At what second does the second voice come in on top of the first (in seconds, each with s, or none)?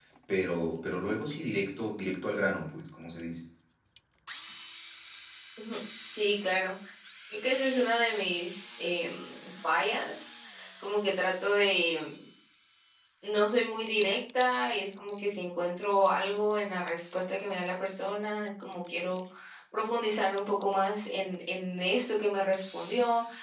none